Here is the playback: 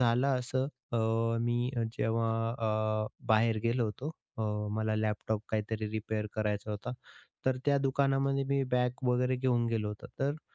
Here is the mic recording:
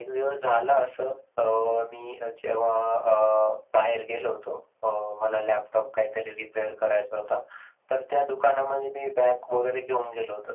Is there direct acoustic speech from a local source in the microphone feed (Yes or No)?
No